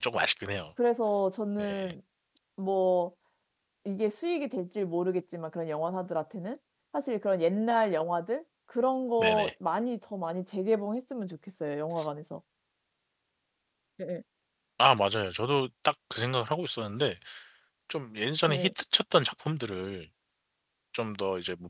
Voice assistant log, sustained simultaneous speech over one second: none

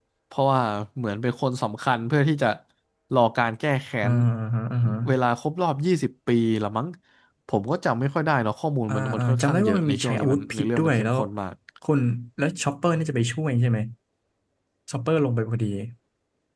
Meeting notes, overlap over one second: present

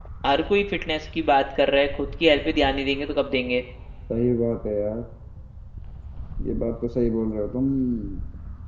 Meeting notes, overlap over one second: none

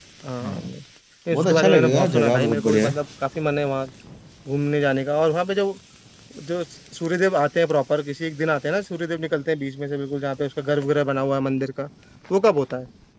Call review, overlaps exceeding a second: present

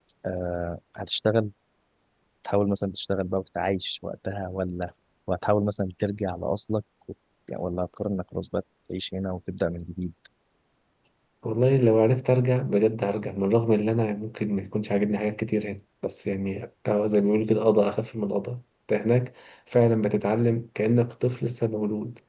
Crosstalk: none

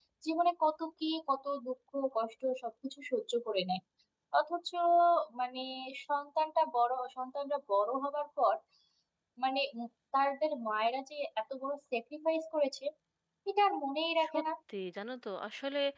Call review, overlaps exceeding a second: none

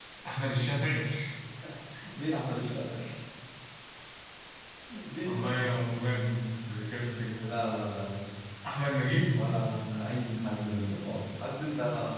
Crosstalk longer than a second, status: none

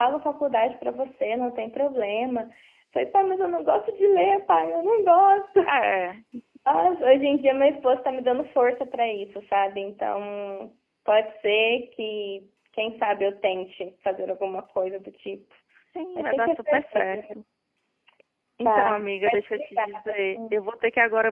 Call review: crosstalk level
present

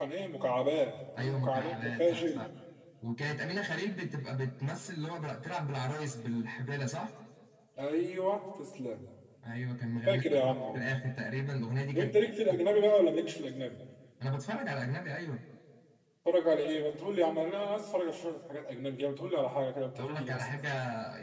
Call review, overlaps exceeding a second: present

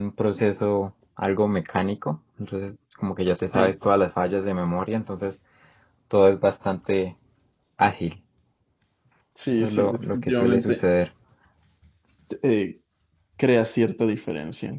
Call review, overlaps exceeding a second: present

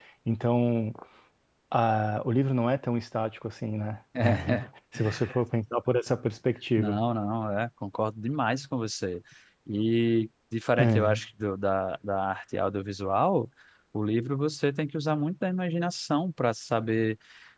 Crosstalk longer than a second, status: none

